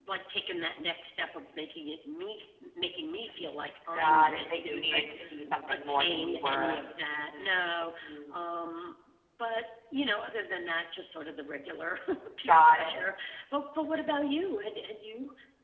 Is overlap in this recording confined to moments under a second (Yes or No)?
No